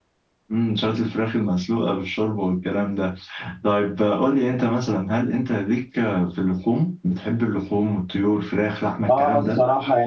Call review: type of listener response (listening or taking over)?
taking over